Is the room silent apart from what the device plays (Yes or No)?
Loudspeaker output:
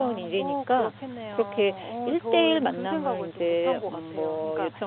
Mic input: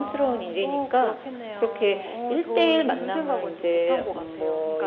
Yes